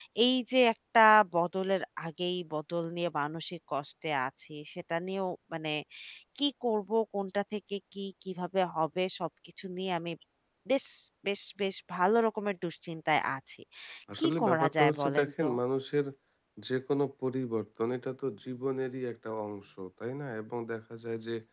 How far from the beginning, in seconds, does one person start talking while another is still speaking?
14.2 s

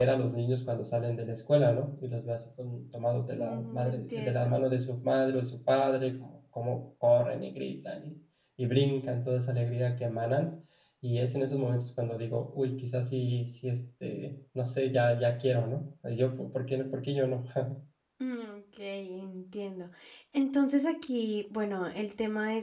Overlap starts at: 3.4 s

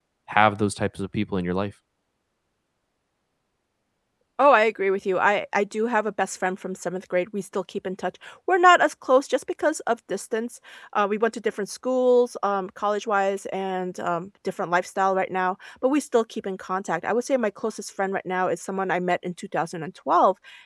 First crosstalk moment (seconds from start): none

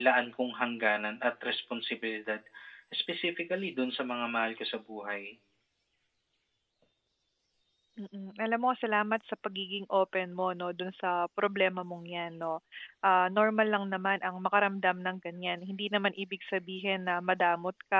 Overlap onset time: none

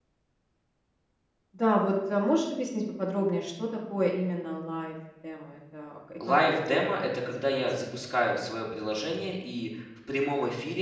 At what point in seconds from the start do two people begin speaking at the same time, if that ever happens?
6.2 s

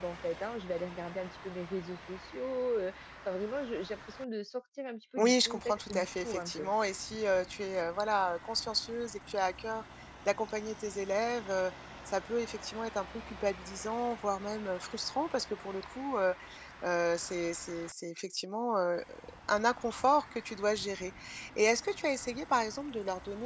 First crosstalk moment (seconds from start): 5.2 s

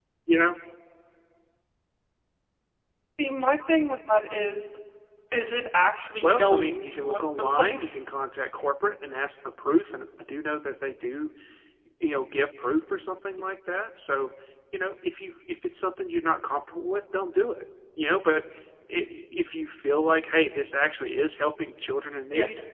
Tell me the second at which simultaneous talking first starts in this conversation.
6.2 s

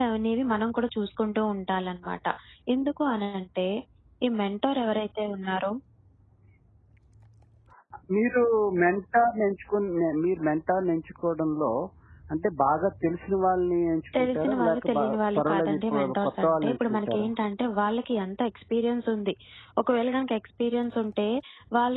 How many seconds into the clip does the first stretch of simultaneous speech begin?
14.1 s

